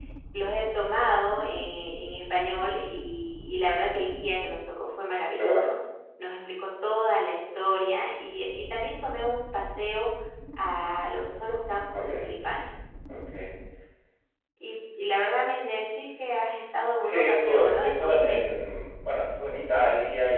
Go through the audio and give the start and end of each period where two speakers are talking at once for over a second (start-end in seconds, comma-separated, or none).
17.0-18.4